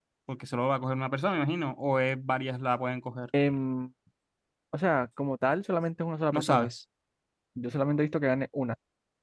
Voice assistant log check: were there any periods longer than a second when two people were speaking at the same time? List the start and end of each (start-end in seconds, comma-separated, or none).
none